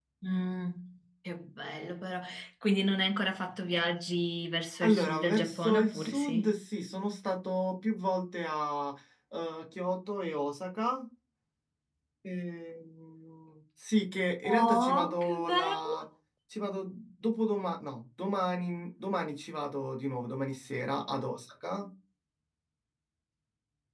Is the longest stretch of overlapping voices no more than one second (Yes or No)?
No